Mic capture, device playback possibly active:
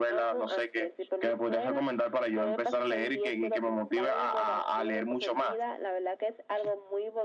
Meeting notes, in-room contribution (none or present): none